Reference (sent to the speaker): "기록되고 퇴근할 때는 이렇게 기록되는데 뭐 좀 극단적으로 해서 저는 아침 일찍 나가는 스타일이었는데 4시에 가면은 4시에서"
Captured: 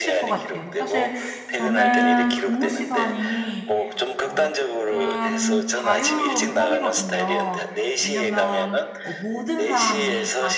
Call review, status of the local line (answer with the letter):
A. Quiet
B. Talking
B